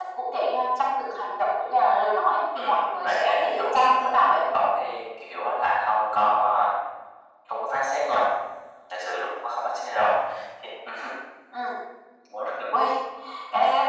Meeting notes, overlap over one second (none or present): present